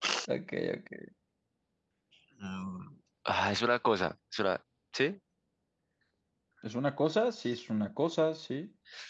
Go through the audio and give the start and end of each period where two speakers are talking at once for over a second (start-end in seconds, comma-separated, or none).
none